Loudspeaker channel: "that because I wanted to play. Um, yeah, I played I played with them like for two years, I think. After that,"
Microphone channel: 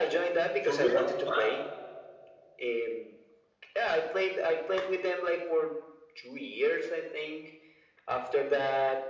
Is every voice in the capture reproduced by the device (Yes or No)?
No